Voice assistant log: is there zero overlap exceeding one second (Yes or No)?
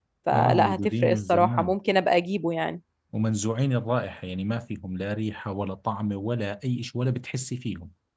No